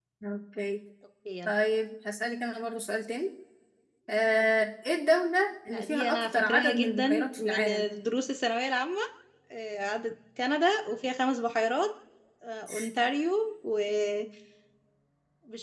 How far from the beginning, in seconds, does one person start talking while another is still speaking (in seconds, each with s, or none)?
5.7 s